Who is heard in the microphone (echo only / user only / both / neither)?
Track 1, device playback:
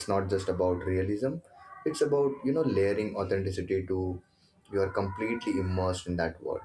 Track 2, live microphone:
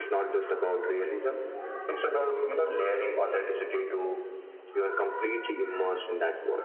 echo only